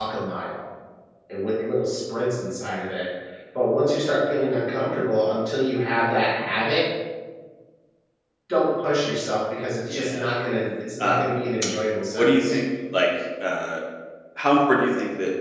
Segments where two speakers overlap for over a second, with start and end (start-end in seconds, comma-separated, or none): none